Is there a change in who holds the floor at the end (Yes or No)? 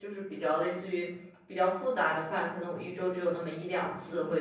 Yes